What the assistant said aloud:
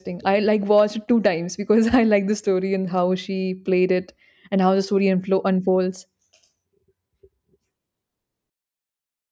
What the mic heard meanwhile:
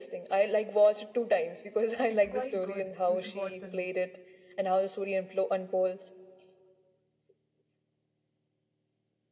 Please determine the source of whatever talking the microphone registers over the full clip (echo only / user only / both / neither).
both